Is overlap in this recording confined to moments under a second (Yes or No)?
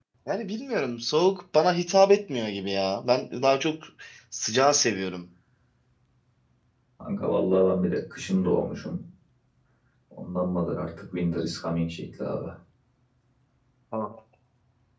Yes